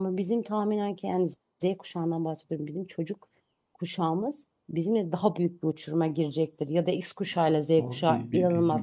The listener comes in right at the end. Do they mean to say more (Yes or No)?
Yes